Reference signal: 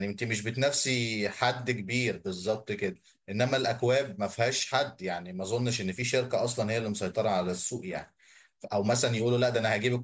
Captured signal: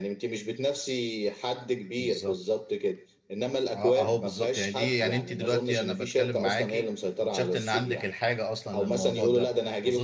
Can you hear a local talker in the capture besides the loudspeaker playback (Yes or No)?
Yes